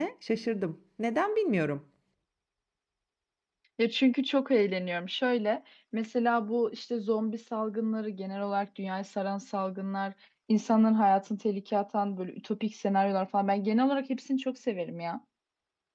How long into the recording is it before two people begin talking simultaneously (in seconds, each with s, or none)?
none